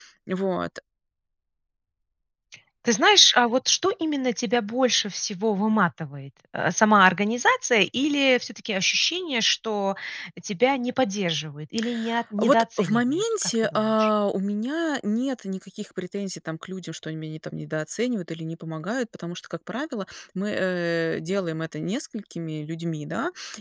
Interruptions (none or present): present